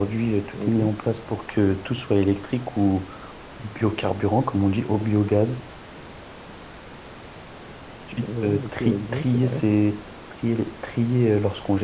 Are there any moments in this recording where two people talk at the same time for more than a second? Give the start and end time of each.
8.2-9.6

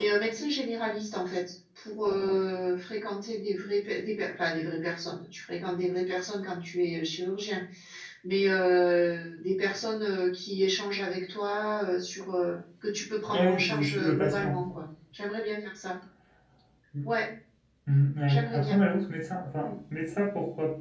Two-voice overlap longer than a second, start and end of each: 13.3-14.6

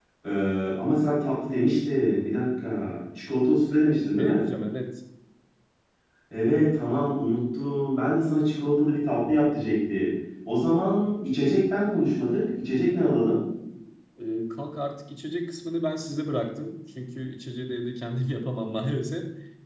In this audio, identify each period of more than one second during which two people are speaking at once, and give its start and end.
none

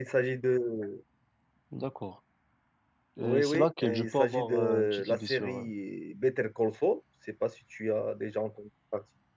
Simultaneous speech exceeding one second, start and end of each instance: 3.2-5.7

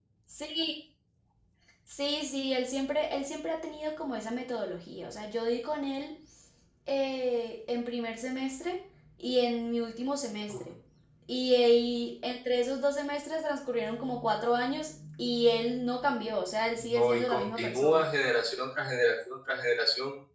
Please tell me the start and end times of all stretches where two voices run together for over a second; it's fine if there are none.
16.8-18.0

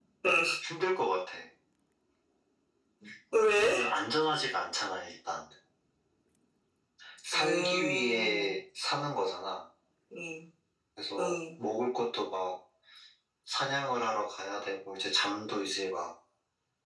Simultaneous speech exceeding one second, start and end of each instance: 7.3-8.6

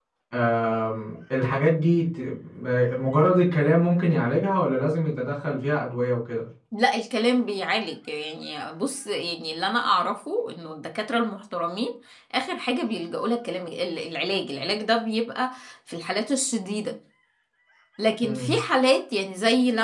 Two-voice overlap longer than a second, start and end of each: none

